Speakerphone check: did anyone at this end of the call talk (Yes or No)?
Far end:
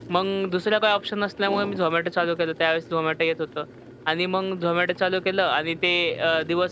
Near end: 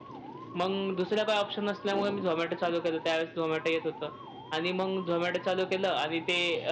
No